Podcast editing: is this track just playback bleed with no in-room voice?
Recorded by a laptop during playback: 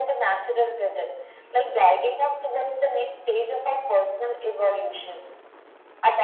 Yes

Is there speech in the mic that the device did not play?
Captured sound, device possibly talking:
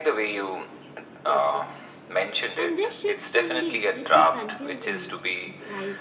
Yes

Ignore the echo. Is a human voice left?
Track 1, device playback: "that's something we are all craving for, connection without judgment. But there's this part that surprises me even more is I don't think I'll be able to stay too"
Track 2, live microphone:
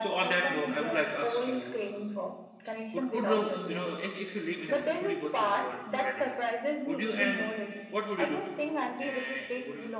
Yes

